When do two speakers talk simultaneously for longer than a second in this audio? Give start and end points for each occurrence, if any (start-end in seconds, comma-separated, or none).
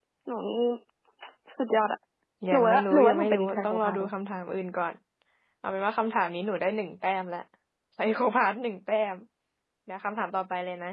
2.5-4.1